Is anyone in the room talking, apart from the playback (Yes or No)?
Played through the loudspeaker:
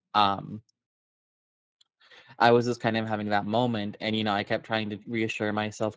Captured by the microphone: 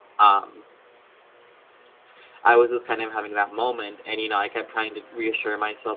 No